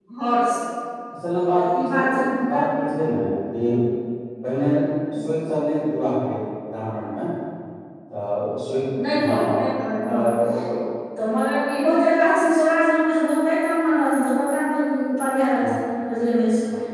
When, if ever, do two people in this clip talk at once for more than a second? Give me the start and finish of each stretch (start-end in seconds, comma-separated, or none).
none